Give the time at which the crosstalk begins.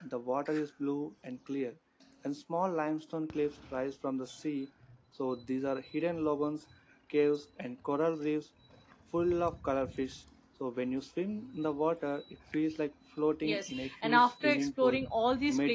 13.4 s

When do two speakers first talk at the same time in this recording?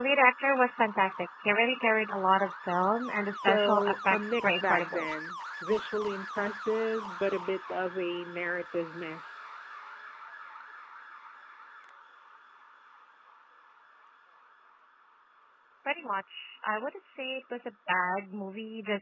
3.2 s

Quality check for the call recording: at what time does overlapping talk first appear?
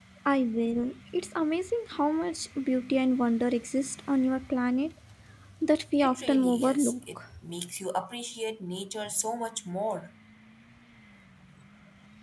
6.0 s

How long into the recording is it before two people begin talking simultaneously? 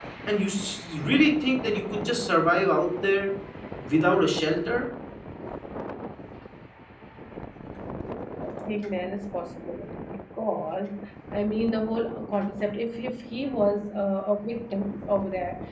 none

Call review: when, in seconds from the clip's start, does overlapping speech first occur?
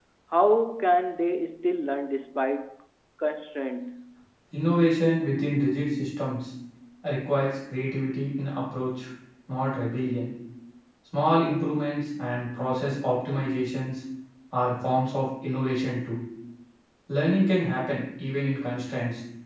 none

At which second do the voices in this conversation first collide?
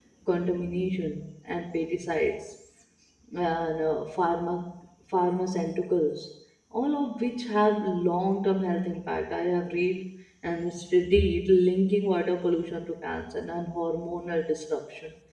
none

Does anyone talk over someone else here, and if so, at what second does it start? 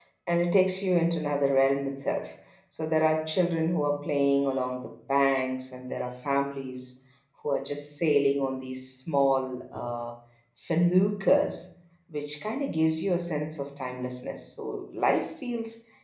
none

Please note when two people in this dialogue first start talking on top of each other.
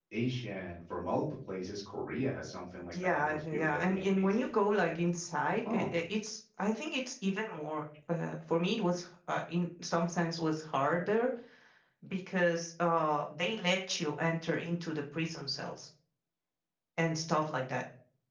2.9 s

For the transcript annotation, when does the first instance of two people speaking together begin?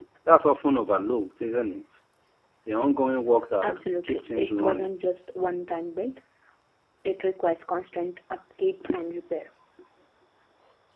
3.6 s

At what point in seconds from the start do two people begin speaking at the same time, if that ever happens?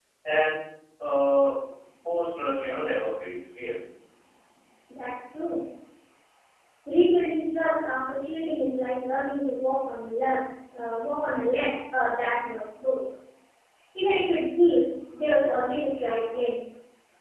none

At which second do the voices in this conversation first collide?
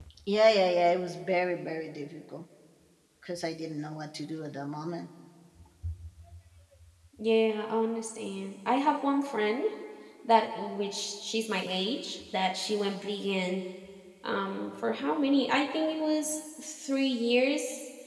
none

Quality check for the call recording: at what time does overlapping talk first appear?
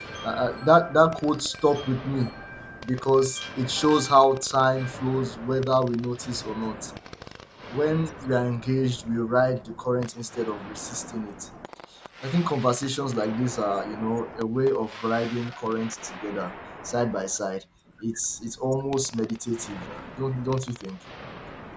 none

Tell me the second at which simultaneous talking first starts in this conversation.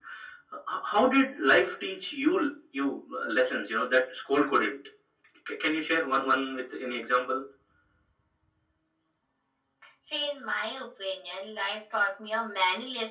none

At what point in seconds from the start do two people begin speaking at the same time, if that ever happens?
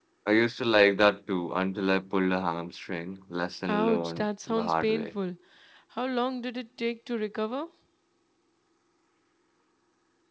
3.7 s

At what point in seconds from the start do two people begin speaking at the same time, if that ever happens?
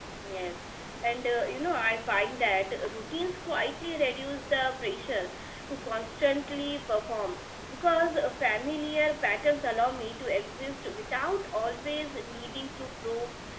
none

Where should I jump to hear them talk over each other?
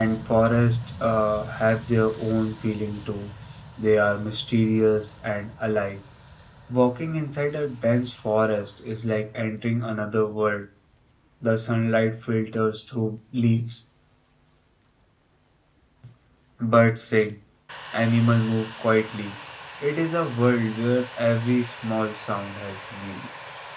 none

